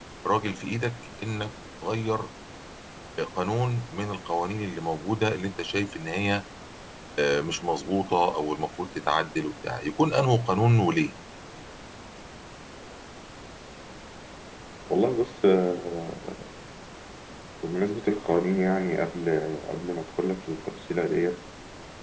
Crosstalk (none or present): none